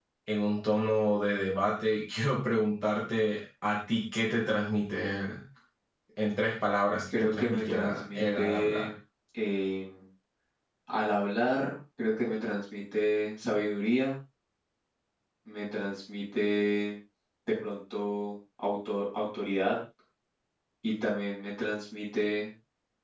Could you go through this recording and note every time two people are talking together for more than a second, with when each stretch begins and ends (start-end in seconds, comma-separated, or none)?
7.1-8.9